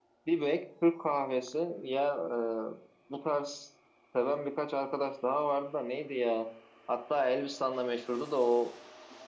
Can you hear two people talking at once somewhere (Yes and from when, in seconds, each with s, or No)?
No